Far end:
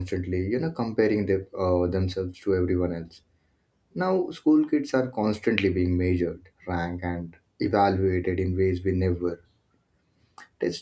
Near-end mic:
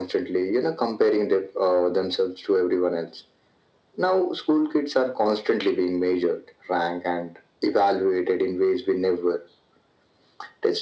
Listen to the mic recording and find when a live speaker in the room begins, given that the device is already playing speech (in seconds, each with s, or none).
none